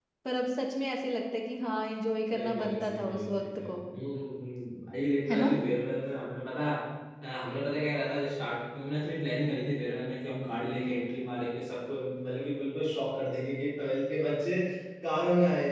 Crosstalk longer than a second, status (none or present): present